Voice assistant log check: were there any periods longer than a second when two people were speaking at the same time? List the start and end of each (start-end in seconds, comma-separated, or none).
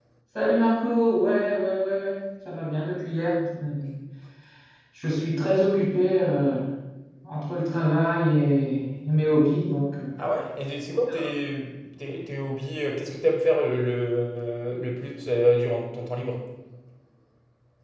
none